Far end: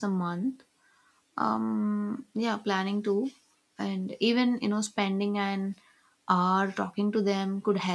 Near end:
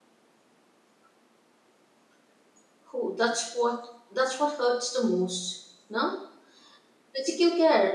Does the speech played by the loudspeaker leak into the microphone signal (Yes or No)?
No